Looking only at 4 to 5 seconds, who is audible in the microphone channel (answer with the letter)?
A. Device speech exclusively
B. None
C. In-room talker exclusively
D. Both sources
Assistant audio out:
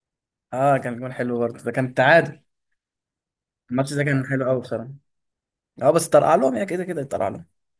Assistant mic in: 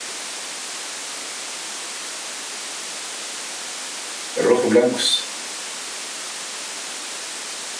C